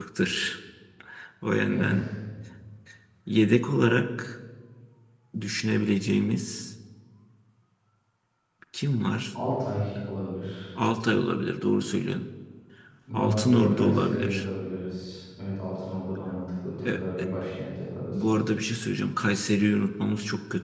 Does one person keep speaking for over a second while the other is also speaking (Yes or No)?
Yes